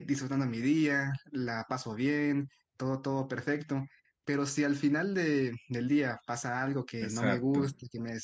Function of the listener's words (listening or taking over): listening